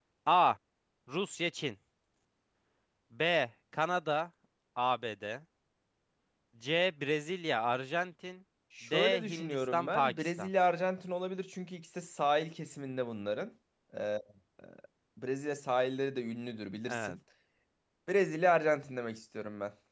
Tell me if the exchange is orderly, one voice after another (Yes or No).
No